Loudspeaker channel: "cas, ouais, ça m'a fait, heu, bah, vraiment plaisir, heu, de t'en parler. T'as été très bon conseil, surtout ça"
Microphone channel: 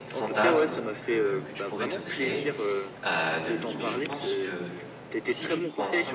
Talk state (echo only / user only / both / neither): both